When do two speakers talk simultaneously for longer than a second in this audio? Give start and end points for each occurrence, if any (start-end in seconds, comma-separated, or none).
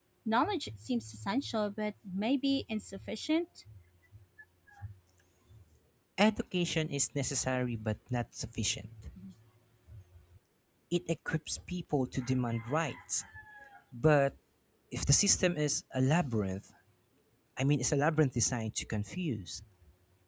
none